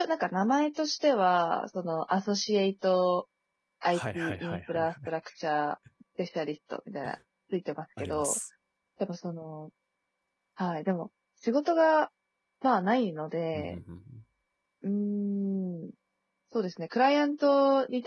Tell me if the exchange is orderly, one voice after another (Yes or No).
No